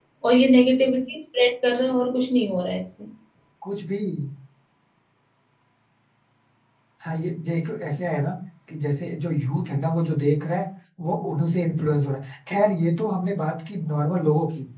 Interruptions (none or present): none